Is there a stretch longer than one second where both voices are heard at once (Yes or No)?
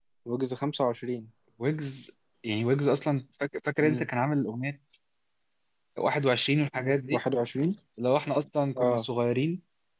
No